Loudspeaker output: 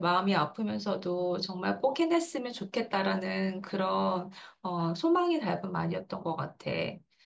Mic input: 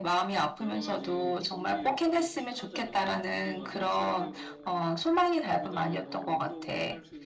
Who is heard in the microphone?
both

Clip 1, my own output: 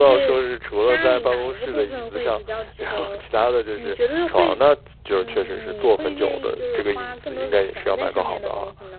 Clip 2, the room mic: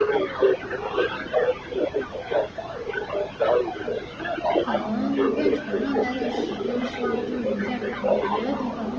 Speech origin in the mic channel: both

